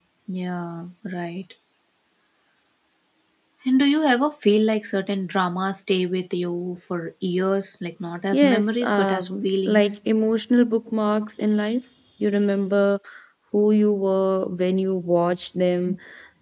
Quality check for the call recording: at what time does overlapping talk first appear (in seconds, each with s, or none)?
8.3 s